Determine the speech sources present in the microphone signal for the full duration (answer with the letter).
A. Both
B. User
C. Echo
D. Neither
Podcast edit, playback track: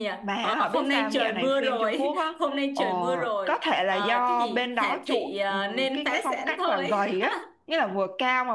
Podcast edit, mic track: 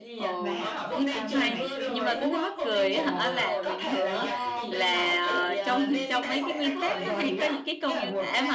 A